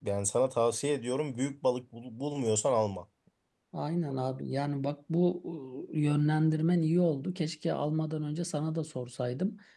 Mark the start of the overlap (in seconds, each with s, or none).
none